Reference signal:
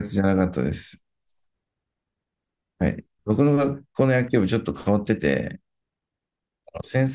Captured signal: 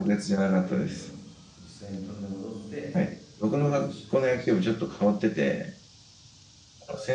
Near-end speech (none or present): present